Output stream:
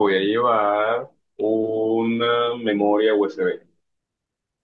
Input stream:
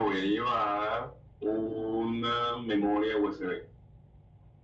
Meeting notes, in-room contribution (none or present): none